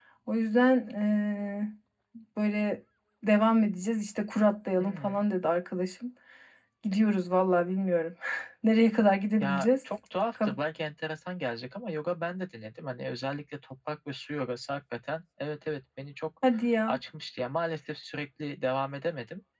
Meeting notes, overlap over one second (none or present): none